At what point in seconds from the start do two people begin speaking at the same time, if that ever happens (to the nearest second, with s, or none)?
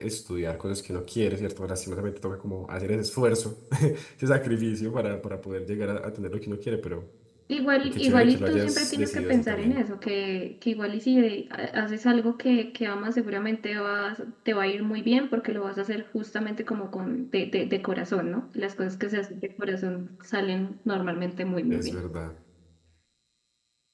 8 s